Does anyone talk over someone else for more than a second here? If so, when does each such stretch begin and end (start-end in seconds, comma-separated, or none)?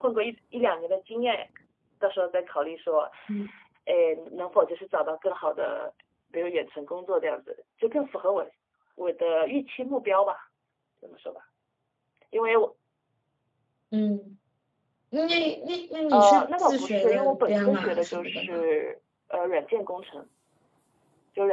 16.1-18.6